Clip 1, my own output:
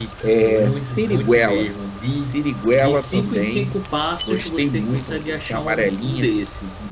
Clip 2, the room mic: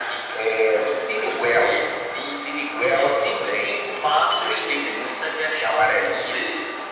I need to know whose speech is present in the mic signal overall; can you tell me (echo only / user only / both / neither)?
echo only